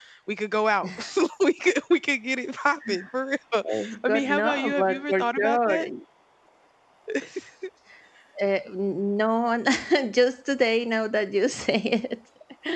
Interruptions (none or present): present